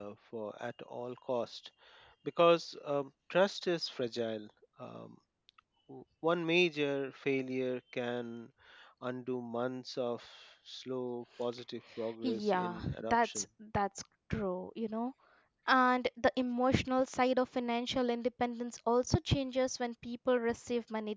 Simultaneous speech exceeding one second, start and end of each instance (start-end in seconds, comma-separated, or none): 12.2-13.4